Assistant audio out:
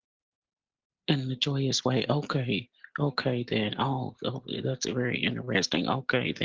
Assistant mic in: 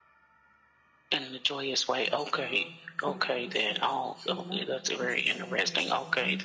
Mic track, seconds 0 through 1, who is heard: neither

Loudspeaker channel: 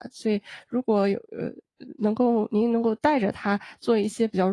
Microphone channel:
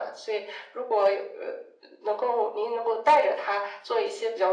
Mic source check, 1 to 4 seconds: echo only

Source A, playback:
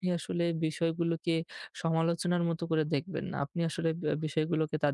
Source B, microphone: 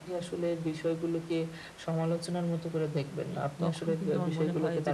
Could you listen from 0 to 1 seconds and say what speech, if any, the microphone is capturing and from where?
echo only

